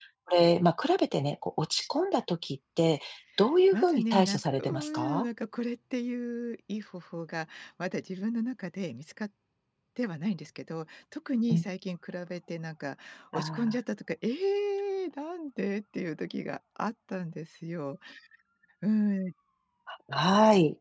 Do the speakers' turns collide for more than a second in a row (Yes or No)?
Yes